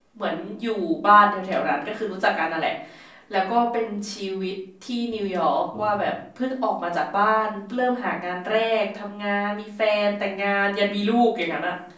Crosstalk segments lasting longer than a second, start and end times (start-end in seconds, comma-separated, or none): none